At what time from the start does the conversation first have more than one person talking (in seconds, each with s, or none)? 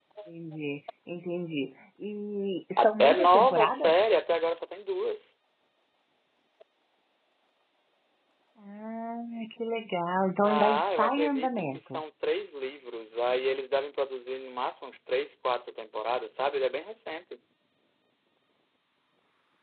2.8 s